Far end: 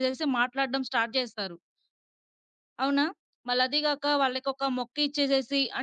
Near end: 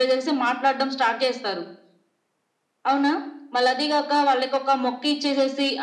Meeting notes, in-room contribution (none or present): none